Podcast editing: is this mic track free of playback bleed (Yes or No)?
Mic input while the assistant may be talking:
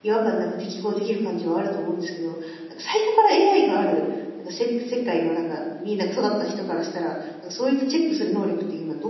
Yes